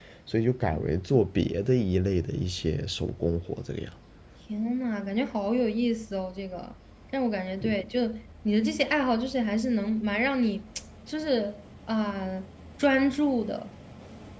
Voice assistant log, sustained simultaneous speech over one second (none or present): none